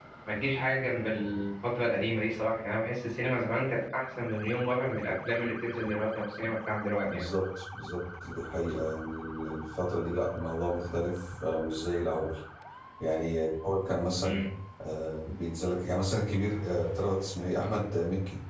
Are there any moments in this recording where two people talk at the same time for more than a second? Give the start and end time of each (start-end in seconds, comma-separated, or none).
none